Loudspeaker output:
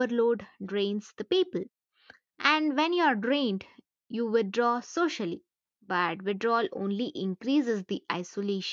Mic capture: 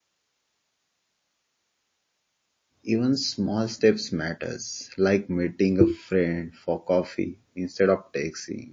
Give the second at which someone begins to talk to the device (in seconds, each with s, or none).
2.8 s